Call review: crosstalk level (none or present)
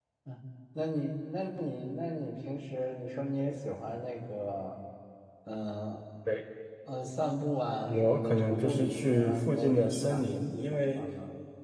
present